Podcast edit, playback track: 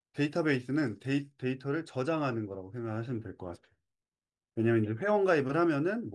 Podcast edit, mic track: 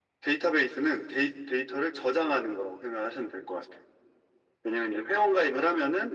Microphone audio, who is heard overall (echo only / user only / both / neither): echo only